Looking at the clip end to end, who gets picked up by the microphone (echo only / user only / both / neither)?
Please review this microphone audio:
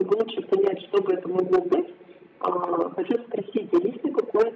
echo only